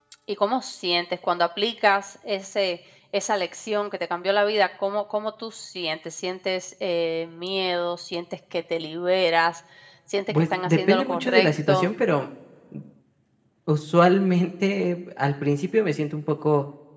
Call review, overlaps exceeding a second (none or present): present